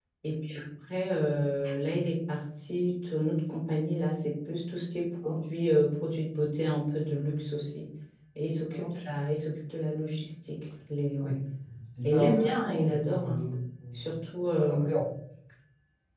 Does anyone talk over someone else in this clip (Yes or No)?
Yes